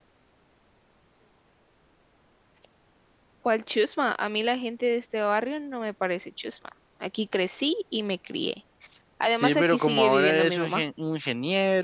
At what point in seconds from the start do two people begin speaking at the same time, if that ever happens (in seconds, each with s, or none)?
9.3 s